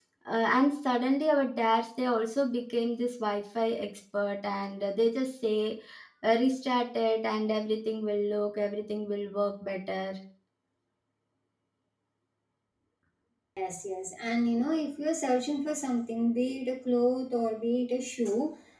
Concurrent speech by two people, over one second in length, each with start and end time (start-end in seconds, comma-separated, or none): none